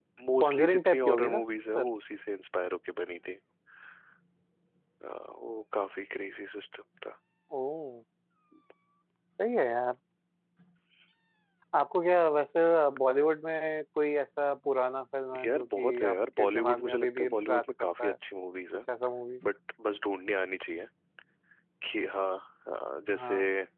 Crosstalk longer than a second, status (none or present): present